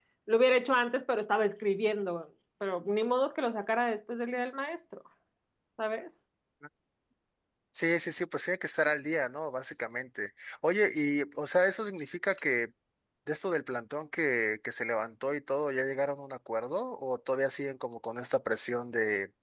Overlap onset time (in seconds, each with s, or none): none